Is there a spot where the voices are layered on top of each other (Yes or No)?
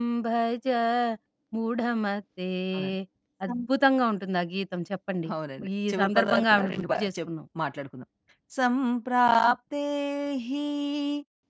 Yes